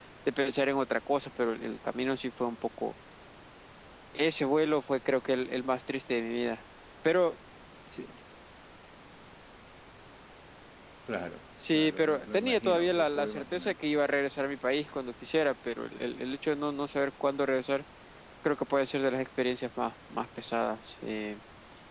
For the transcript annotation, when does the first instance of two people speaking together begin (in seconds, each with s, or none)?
11.7 s